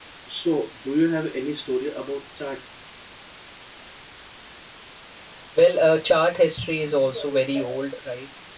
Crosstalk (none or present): none